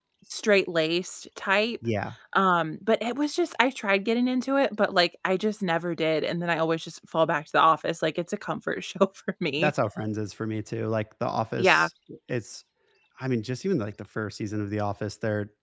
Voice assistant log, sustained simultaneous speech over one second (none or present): none